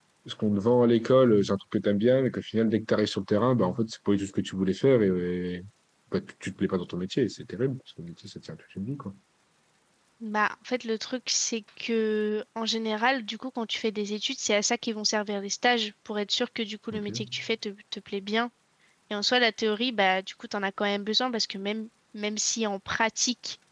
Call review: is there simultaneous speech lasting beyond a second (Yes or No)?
No